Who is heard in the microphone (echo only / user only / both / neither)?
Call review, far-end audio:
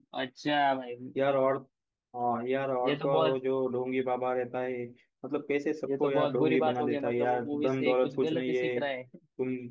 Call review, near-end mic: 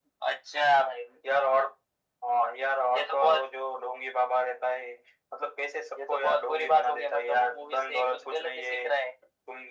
echo only